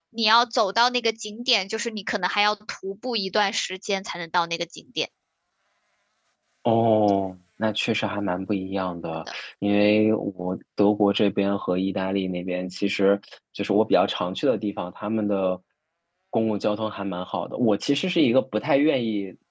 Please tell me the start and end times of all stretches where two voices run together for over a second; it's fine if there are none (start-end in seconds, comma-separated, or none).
none